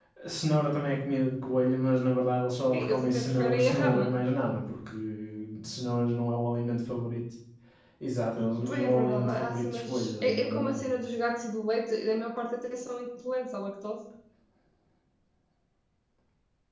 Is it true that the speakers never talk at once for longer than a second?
No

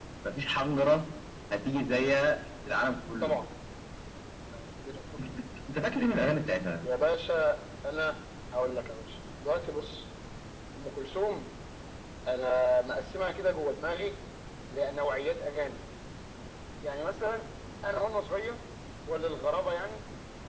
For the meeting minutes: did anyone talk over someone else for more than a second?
No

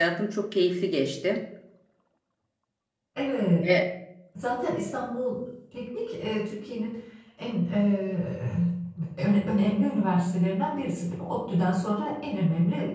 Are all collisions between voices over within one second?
Yes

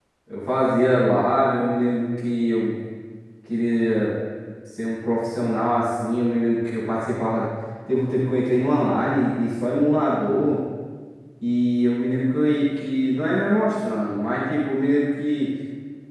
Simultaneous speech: No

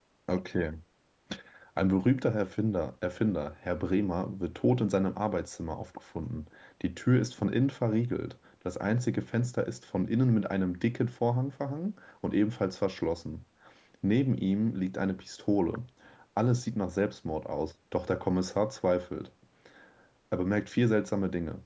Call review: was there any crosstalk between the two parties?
No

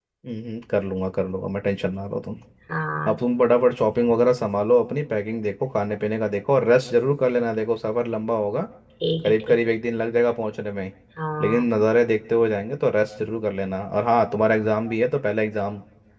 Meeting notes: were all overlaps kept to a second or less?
Yes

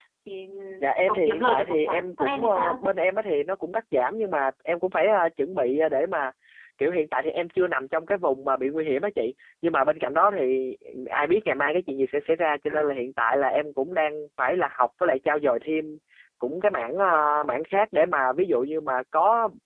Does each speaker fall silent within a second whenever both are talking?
No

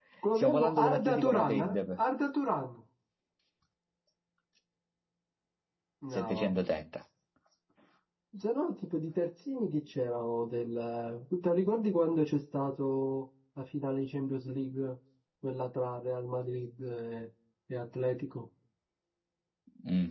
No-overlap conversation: No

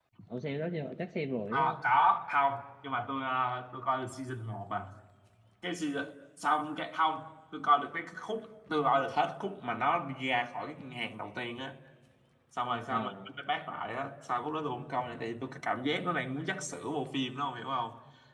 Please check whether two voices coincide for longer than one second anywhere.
No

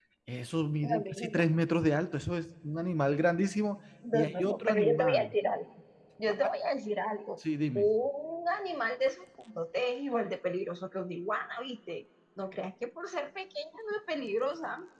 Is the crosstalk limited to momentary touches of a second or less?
No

